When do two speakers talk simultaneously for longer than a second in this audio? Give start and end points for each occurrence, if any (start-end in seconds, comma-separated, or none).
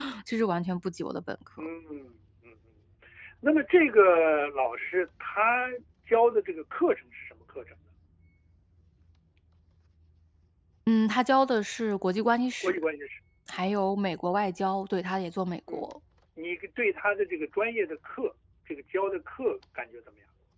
none